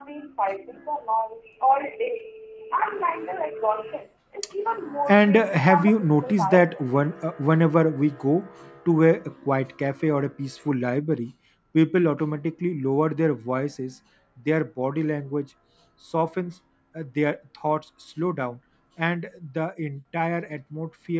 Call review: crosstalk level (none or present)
present